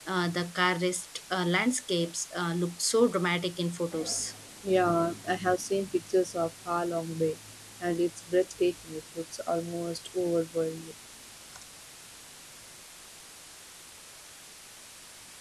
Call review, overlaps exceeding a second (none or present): none